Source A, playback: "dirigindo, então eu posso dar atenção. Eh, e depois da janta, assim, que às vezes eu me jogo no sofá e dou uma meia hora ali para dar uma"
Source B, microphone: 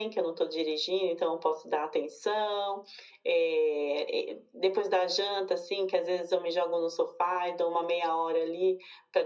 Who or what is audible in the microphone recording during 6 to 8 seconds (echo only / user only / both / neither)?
echo only